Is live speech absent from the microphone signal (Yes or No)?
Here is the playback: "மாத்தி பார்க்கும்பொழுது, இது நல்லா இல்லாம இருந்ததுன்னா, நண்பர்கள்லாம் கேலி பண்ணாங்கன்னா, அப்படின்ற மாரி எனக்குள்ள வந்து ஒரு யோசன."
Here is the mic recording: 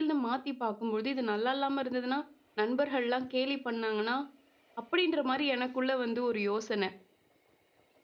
Yes